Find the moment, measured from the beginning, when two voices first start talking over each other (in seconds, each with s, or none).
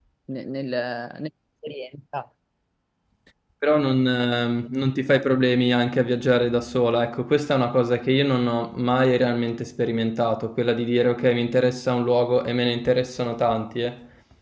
none